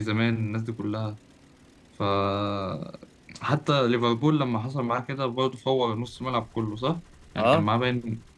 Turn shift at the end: No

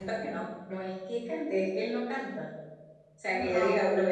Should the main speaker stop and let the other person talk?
No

